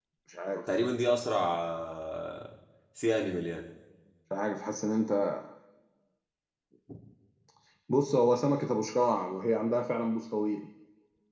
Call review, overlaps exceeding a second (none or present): none